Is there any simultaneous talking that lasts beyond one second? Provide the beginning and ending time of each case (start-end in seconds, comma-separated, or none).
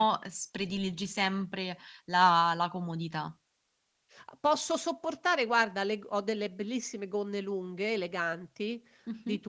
none